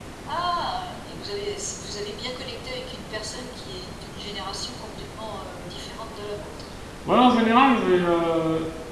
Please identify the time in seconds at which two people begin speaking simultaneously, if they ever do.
none

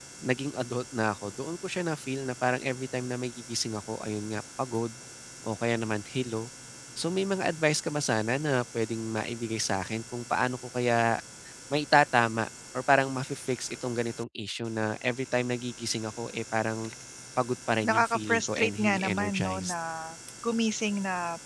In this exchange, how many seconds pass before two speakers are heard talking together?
17.9 s

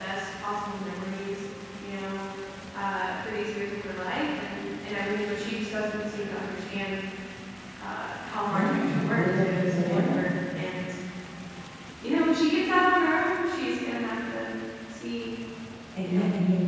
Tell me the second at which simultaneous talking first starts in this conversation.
8.5 s

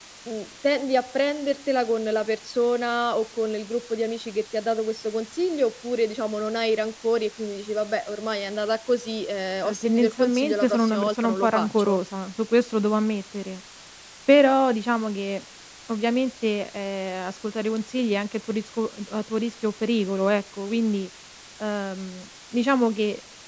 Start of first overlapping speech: 9.6 s

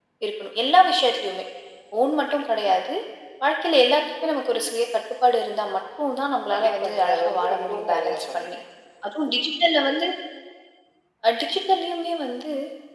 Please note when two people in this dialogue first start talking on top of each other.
6.5 s

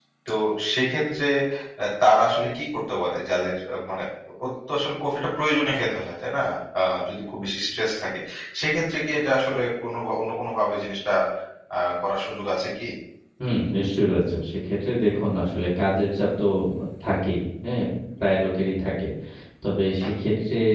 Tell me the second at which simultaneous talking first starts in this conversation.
none

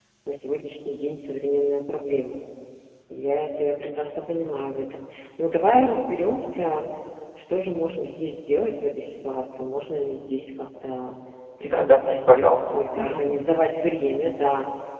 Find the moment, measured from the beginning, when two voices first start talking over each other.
11.6 s

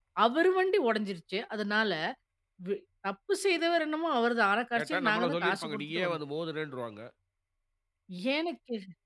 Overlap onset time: 4.8 s

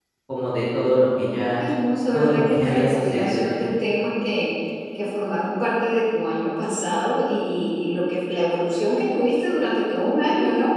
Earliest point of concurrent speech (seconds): 2.1 s

